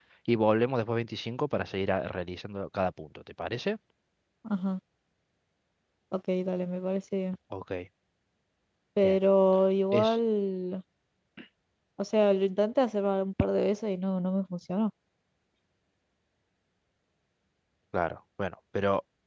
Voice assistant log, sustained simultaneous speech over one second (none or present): none